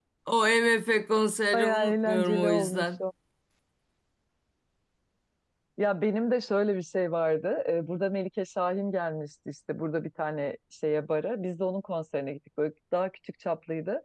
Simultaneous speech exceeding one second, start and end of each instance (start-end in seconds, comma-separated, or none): 1.5-3.0